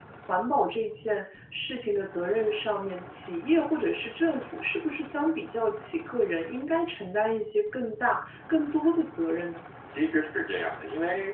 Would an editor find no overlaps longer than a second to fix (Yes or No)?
Yes